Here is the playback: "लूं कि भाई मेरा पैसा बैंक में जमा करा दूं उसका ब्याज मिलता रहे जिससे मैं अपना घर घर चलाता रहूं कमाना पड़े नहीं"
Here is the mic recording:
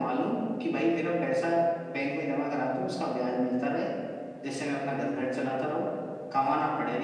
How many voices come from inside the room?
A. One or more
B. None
B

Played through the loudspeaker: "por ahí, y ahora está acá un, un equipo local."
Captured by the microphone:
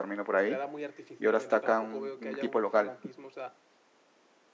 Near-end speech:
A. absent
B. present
B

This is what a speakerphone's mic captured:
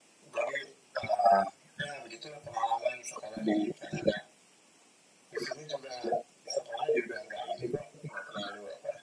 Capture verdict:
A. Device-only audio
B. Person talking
A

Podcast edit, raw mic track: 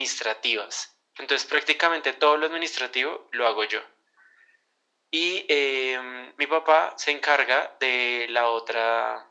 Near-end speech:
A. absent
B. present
A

